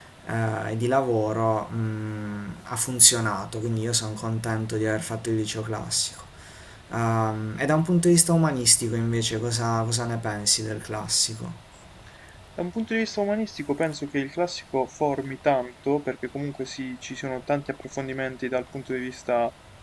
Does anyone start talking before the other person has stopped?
No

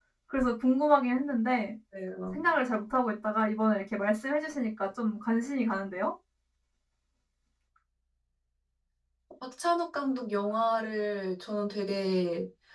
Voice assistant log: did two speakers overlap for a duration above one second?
No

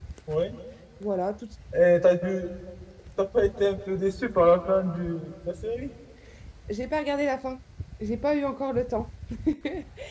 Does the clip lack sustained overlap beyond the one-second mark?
Yes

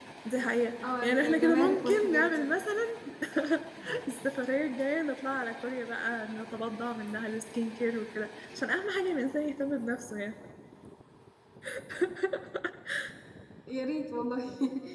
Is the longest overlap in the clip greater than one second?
Yes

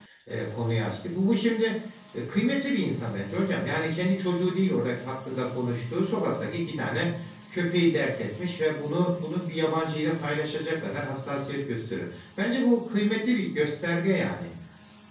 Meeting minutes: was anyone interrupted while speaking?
No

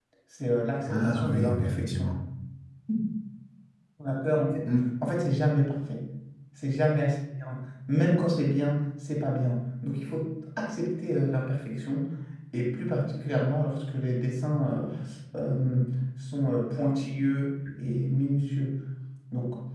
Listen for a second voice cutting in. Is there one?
Yes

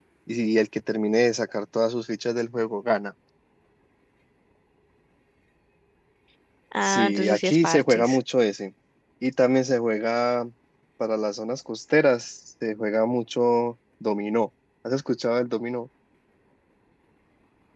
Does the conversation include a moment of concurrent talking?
Yes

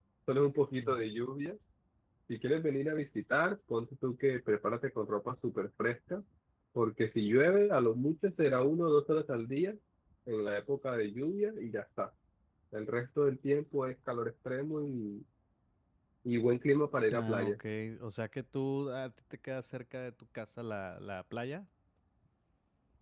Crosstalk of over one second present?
No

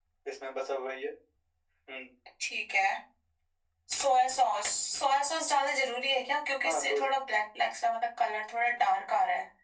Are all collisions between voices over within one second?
Yes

